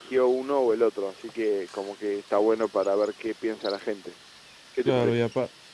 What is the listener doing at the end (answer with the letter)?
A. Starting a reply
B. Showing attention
A